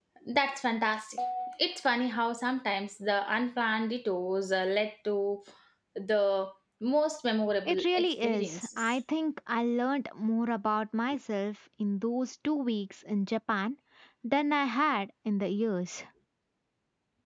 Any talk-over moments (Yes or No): Yes